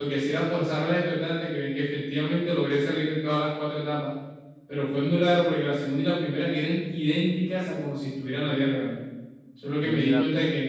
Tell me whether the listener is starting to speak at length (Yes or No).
No